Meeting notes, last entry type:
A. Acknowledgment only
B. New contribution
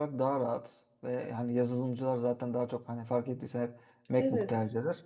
A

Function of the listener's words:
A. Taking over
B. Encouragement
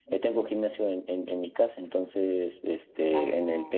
B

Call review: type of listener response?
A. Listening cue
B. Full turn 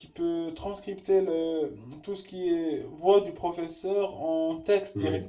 A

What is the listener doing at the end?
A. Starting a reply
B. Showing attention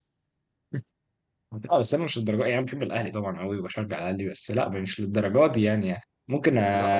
B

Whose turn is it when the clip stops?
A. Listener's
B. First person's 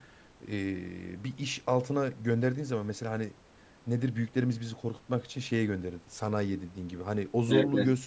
B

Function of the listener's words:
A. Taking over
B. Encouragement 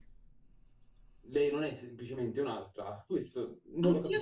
A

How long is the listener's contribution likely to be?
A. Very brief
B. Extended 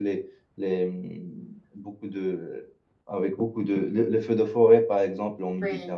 A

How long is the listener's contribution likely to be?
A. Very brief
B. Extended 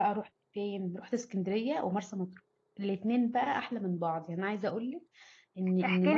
B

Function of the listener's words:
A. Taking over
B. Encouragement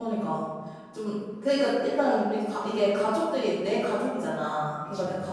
B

